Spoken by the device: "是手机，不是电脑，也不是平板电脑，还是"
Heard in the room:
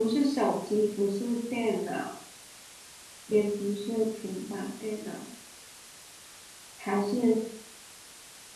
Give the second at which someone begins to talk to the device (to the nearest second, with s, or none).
none